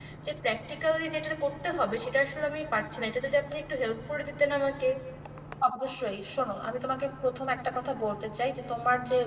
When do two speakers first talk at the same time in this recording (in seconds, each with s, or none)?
none